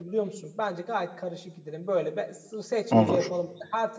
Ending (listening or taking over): listening